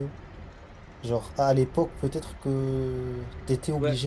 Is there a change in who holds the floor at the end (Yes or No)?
Yes